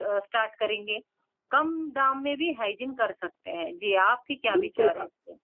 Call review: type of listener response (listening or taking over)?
taking over